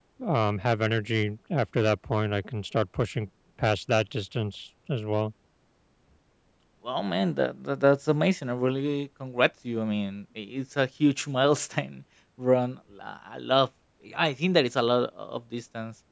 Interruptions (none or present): none